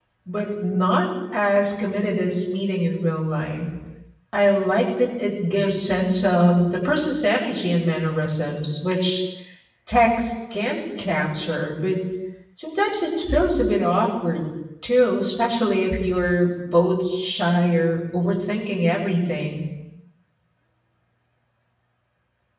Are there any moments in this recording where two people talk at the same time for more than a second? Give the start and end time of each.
none

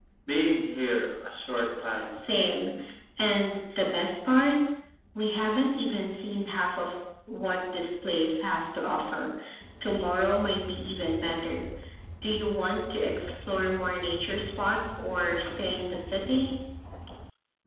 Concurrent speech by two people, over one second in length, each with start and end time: none

